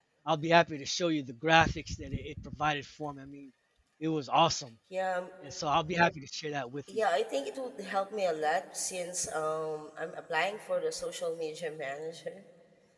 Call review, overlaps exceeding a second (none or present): none